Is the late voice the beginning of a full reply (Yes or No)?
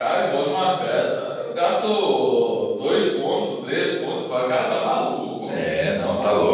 Yes